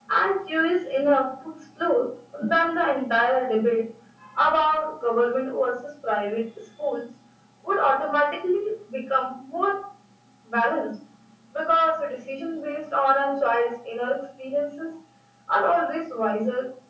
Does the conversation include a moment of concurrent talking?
No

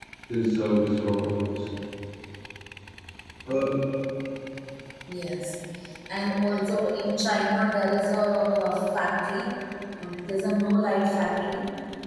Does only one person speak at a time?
Yes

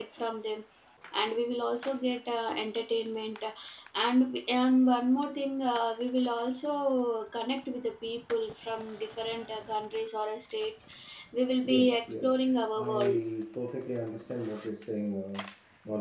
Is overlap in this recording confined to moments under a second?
No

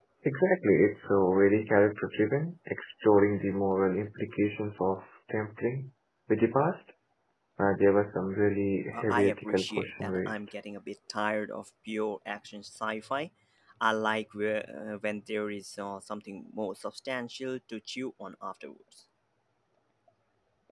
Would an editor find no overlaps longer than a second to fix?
No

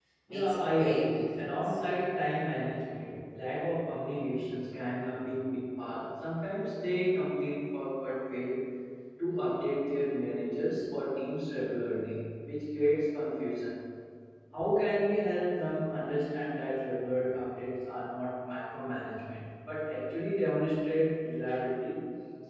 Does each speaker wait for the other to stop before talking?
No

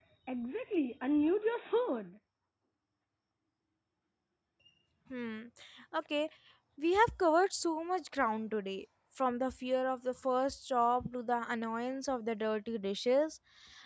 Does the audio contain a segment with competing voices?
No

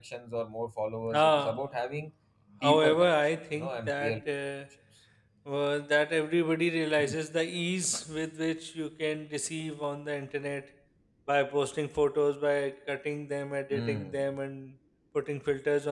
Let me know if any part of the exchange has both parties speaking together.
Yes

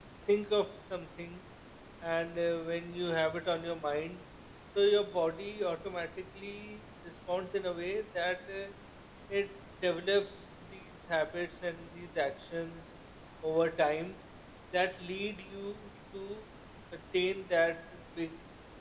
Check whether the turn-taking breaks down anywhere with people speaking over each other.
No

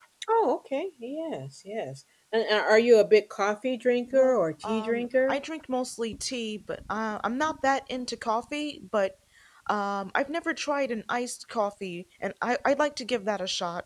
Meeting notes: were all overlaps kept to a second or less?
No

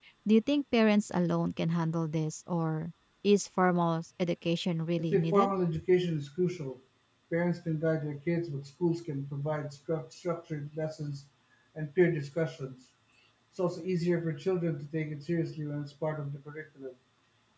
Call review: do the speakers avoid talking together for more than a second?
Yes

